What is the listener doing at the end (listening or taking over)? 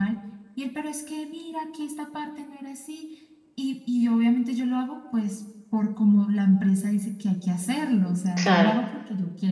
listening